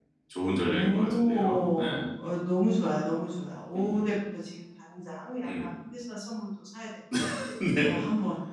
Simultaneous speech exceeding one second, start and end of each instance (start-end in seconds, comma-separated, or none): 0.6-1.8